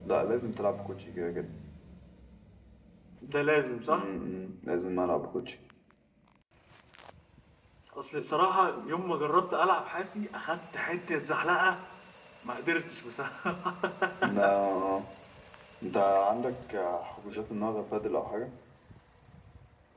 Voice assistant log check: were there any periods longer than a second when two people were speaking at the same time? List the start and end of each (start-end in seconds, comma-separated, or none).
none